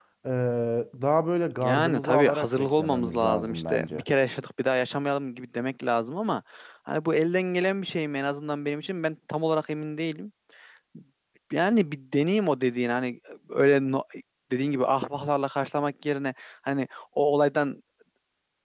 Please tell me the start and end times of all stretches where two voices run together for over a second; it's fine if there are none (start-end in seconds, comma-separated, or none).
1.6-4.0